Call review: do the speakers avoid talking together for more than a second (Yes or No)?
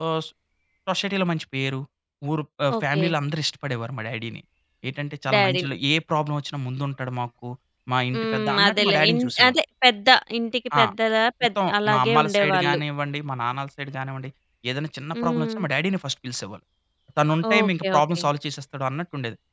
No